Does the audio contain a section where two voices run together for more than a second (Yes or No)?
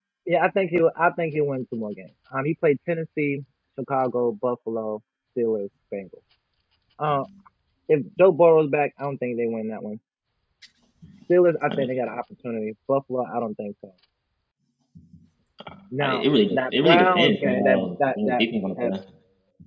Yes